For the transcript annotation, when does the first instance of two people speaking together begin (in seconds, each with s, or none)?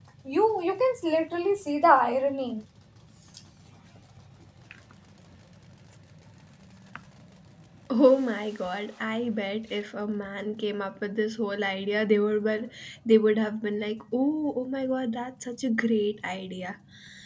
none